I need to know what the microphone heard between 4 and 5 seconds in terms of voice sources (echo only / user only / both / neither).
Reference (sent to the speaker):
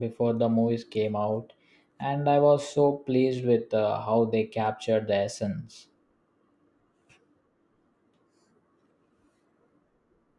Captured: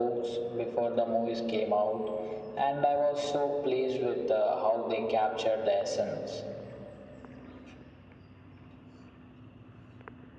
echo only